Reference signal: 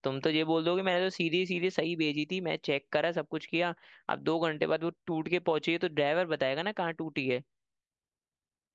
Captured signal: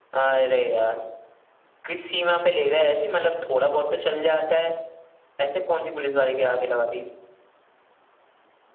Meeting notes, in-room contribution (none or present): present